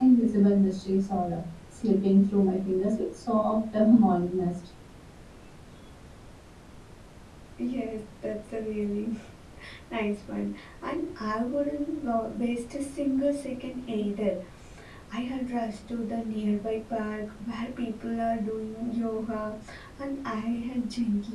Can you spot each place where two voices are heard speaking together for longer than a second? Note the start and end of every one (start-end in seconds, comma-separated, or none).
none